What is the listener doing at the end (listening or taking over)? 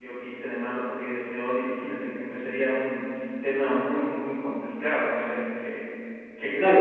taking over